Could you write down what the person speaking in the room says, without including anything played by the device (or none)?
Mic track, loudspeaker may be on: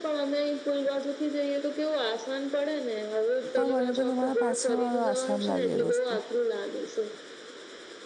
પણ મને તો તમારા પાછળ વાળો આસાન લાગે રસ્તો.